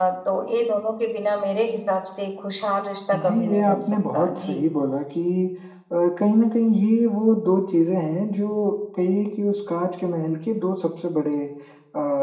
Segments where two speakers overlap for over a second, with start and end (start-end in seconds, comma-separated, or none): 3.2-4.6